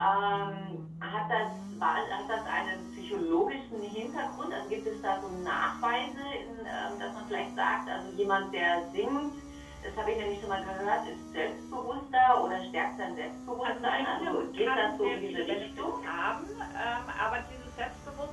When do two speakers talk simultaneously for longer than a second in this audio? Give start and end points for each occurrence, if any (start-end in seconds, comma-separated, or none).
13.6-15.9